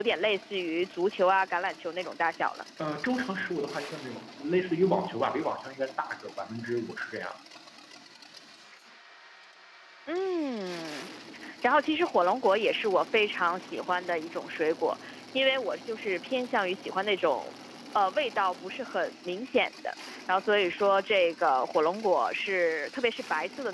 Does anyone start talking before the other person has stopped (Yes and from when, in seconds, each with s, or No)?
No